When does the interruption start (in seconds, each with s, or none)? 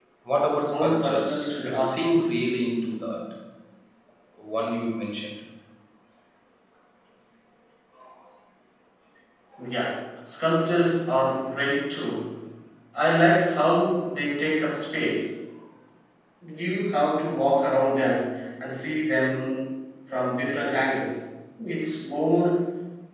0.7 s